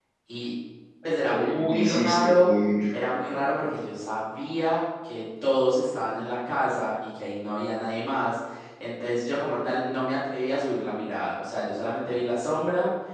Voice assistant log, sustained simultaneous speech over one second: present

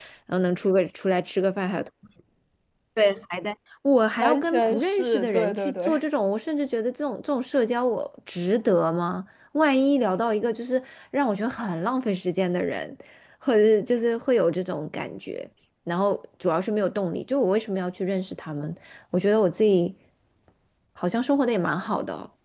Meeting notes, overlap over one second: present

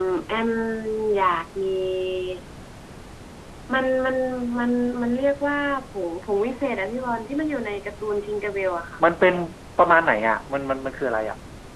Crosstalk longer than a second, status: none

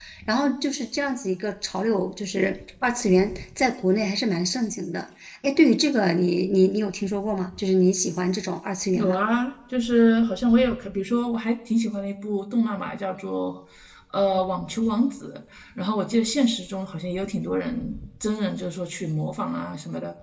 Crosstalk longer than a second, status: none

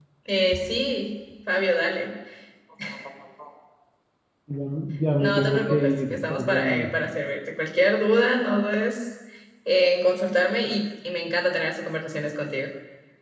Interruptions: present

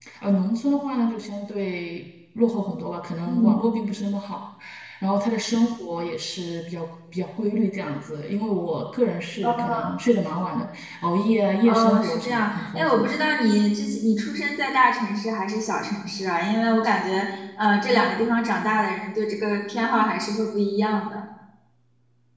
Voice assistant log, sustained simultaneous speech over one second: present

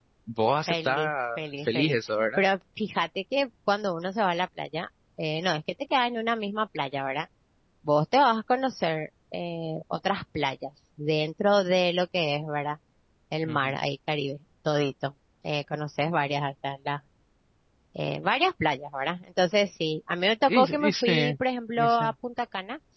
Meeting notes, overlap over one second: present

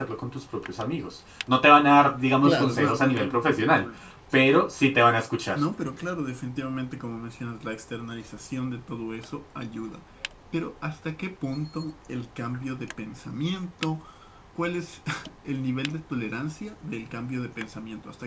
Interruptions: present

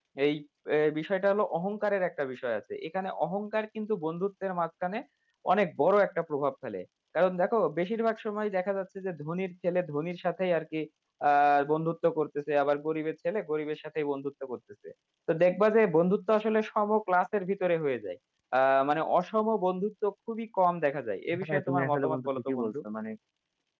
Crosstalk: present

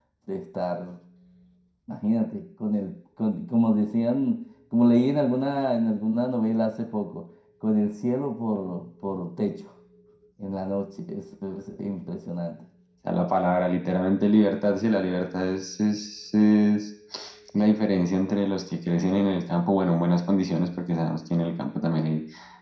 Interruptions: none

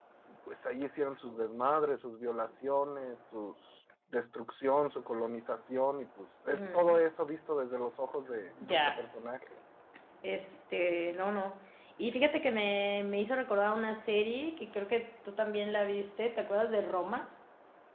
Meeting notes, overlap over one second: none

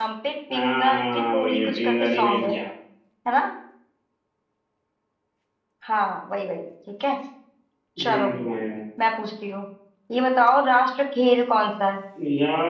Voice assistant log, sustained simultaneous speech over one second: present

